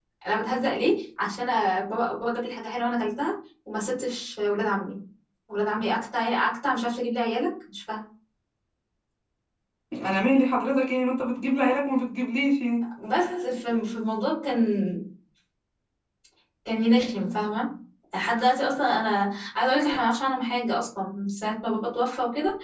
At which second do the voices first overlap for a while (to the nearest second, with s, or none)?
none